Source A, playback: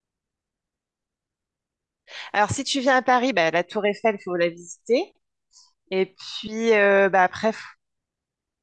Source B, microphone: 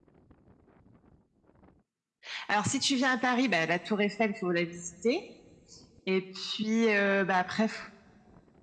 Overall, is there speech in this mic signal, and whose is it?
echo only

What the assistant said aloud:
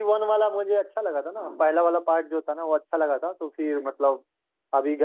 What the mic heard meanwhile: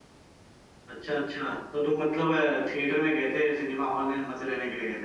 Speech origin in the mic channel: user only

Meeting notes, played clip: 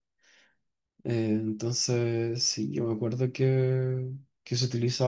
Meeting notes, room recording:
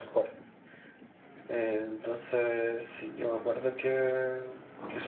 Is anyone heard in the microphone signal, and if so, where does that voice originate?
echo only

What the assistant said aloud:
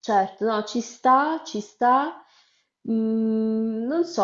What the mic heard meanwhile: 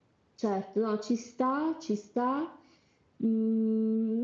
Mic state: echo only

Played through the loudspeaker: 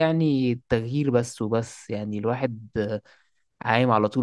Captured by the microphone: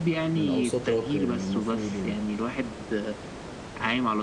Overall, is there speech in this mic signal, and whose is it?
both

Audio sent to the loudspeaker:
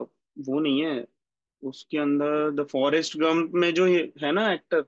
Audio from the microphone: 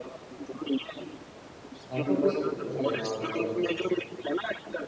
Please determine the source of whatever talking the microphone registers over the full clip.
both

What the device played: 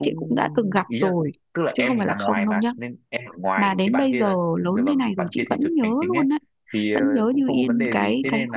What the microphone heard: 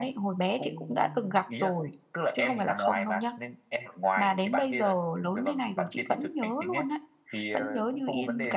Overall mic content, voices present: echo only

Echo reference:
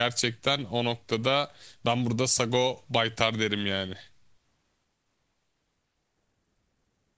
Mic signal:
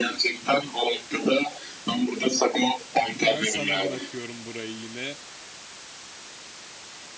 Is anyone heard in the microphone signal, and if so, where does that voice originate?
both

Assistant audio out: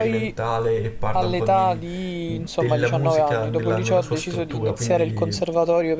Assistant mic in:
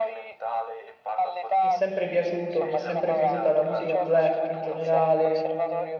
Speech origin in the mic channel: both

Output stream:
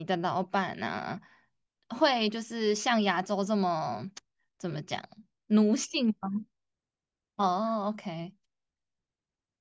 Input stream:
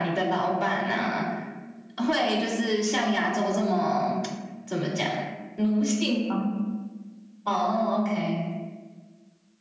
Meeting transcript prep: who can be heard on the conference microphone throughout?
echo only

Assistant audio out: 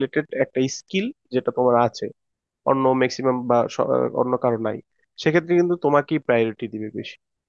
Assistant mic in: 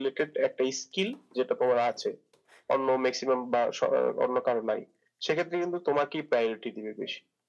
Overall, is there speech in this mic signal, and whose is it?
echo only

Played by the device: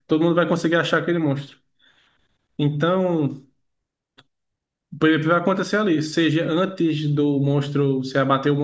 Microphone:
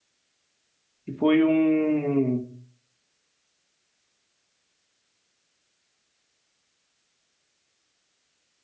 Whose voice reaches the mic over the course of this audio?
user only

